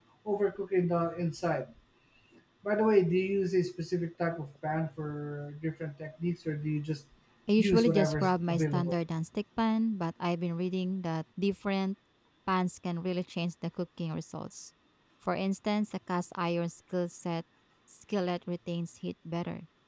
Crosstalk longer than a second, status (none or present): present